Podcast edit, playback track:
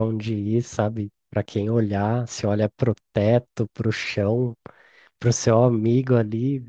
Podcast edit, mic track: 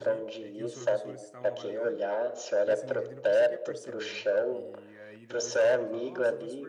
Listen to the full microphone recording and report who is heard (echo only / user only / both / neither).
both